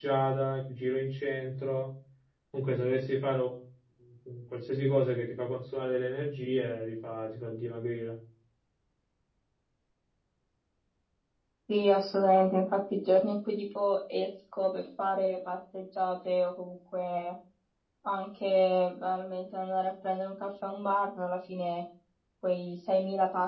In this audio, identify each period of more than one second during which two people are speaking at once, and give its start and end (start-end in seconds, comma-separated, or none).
none